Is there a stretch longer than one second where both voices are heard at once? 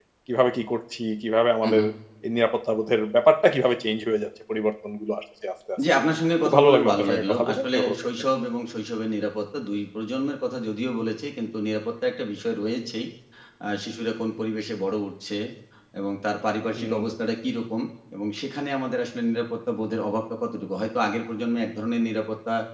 Yes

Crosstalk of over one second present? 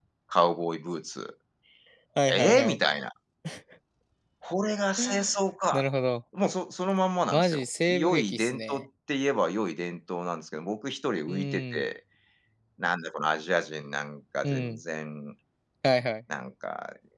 Yes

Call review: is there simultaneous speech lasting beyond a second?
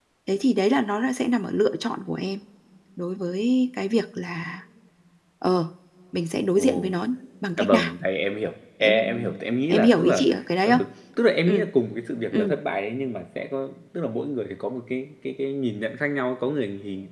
Yes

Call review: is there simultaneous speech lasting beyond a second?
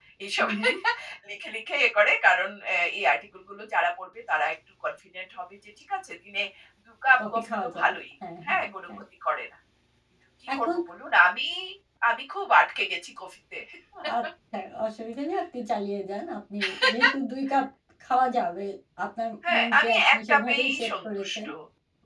Yes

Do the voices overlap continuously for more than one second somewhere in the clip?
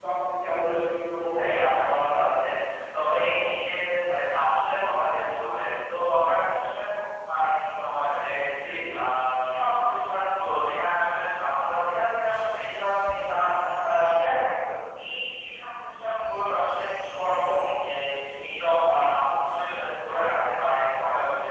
Yes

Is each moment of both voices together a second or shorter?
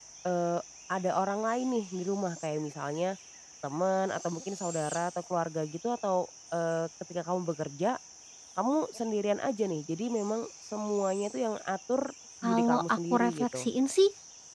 No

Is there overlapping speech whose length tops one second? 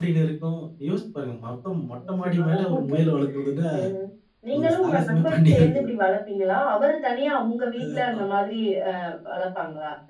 Yes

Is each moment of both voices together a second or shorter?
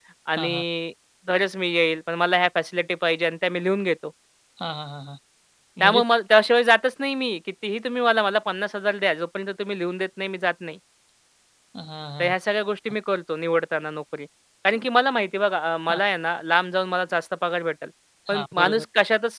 Yes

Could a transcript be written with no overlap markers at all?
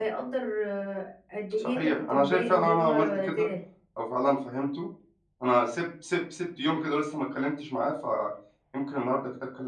No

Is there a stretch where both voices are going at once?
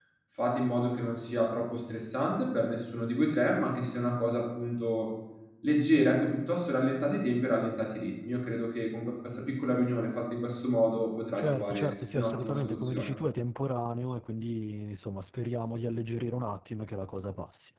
Yes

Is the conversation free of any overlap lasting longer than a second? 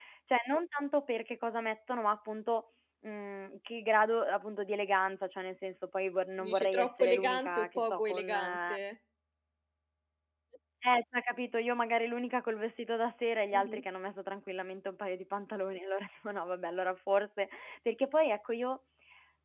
No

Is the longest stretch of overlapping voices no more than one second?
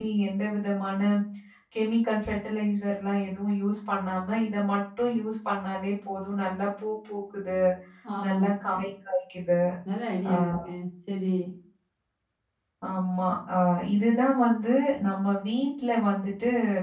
Yes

